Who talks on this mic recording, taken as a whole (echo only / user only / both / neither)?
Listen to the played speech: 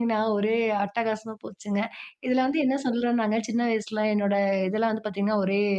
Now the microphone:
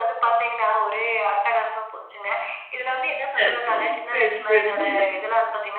both